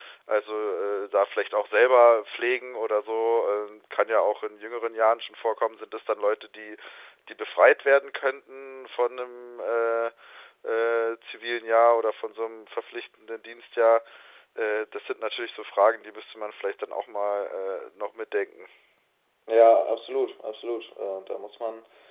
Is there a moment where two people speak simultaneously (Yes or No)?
No